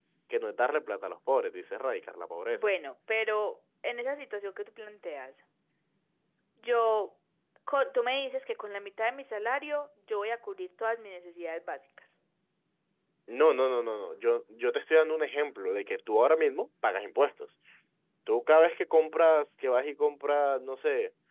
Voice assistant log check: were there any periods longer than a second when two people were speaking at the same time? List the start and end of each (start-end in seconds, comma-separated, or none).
none